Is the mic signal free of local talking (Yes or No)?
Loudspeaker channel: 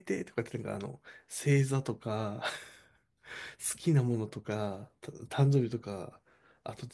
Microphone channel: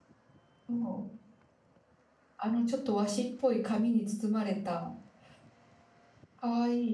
No